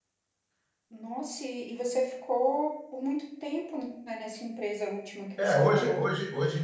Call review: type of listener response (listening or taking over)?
taking over